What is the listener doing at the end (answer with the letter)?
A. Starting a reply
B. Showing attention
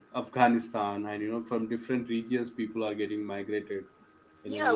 A